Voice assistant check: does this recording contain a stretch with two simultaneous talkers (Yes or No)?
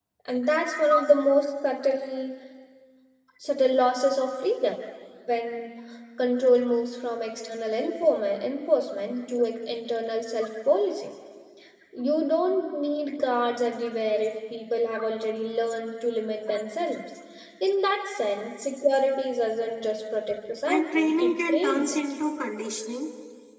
Yes